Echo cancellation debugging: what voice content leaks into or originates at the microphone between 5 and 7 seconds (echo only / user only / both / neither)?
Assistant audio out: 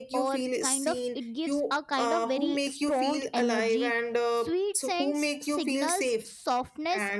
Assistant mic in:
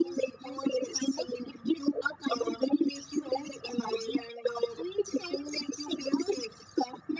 echo only